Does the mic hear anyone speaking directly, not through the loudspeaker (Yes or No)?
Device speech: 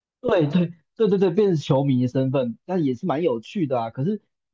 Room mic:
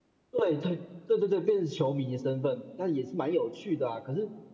No